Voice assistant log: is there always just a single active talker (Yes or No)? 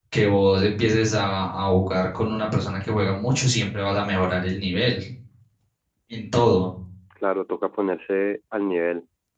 Yes